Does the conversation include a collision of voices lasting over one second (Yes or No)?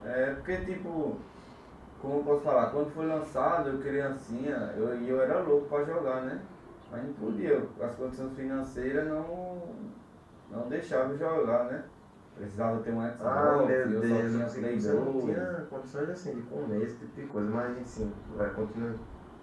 Yes